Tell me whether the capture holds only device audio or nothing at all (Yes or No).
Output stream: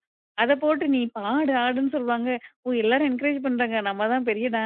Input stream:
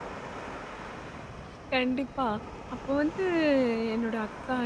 No